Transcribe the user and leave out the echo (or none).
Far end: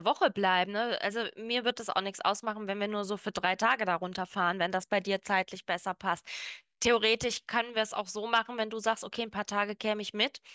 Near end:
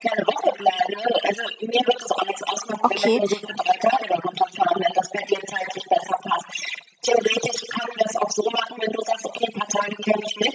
Okay.